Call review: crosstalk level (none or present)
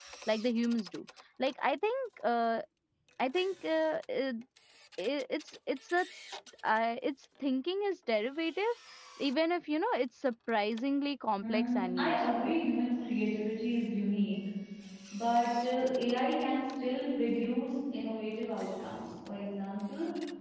present